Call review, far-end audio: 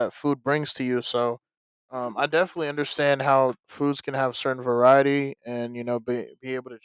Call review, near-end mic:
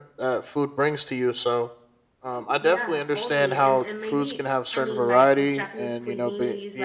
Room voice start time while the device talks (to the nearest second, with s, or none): 3 s